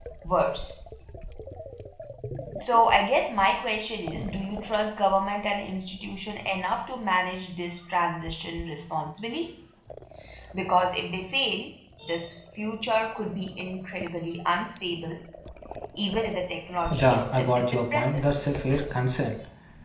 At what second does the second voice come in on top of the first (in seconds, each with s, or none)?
16.9 s